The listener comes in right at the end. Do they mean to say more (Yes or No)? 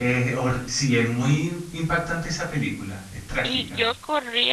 Yes